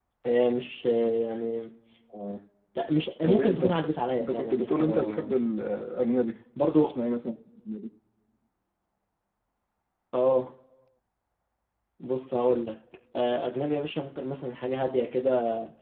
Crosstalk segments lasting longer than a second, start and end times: 3.3-5.4

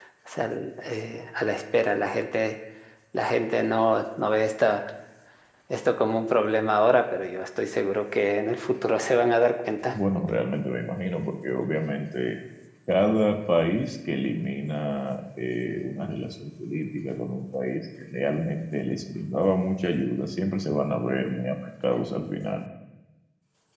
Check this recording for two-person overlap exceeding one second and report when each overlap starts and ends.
none

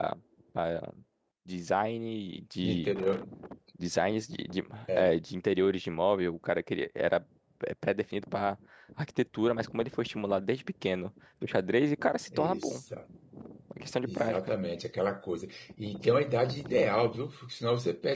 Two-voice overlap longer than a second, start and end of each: none

